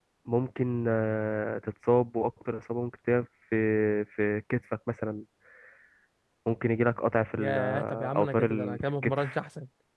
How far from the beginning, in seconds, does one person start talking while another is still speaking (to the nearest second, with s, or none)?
7 s